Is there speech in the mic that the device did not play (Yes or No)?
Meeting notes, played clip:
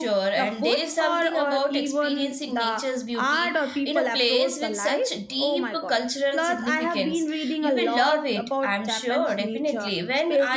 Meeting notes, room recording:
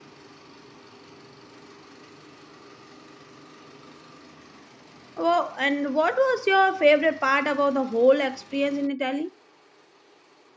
Yes